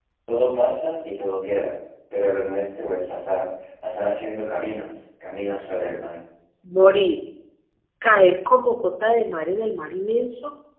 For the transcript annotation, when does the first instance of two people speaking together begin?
none

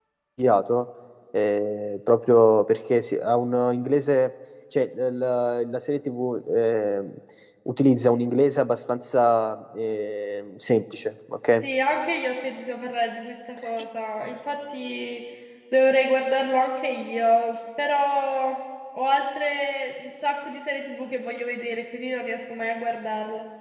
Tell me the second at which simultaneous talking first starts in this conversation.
none

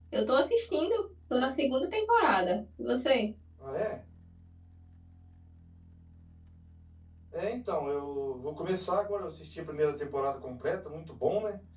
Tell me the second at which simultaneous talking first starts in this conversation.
none

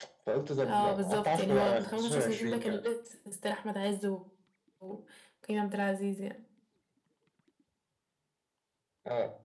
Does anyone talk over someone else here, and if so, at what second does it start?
1 s

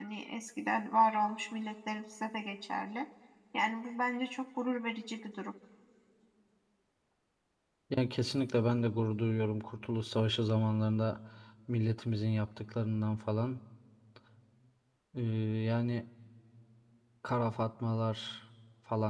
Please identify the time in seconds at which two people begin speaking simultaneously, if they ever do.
none

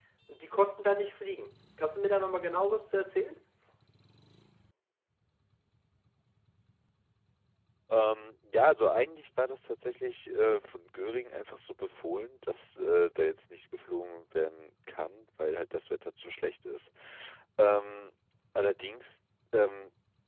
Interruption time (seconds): none

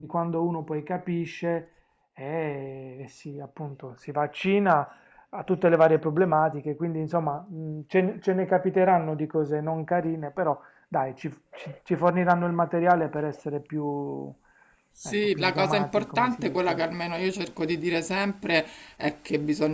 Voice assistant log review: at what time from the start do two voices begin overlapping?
15 s

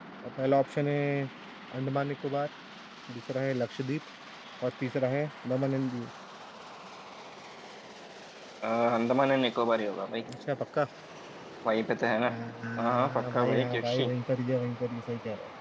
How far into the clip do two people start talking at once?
13 s

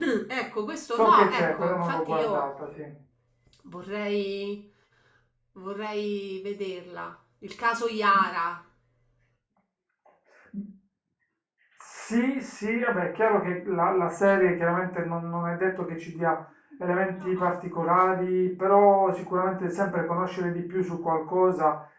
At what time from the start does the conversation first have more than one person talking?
1 s

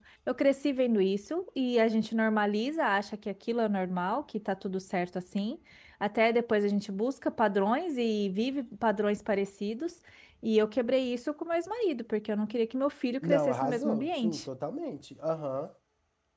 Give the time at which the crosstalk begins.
13 s

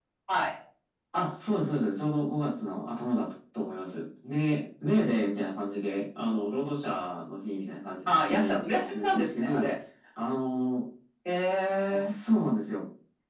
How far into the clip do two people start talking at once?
8 s

